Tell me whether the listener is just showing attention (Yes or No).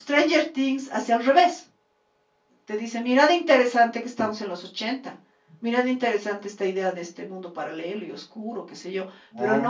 Yes